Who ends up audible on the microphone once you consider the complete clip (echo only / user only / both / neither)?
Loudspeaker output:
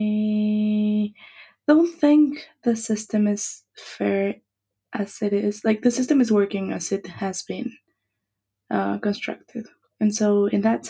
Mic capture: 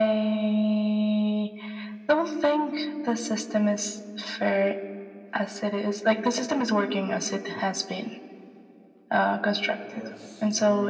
both